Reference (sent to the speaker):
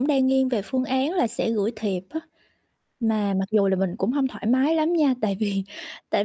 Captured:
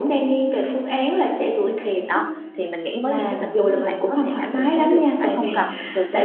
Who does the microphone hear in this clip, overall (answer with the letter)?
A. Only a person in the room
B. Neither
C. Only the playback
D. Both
D